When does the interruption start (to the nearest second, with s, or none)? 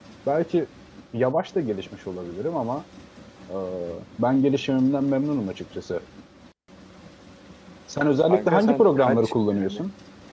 8 s